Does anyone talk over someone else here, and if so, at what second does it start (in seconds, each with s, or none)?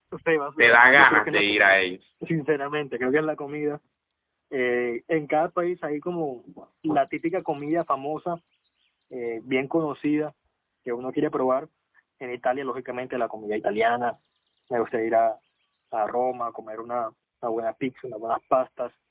0.6 s